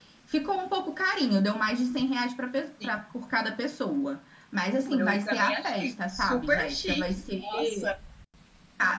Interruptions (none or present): present